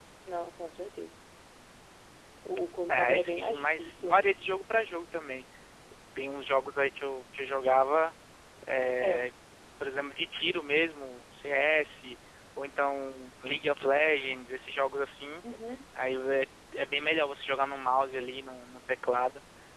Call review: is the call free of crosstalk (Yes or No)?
No